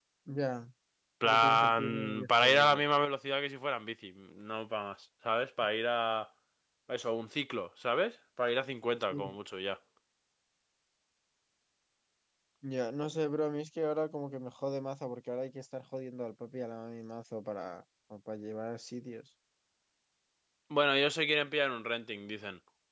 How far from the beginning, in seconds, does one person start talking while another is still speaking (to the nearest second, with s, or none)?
1 s